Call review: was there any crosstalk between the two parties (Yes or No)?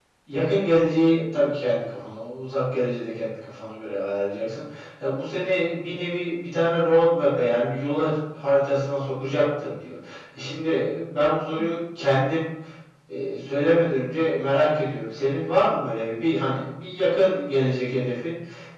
No